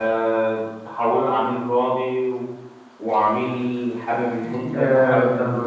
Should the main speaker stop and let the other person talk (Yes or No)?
No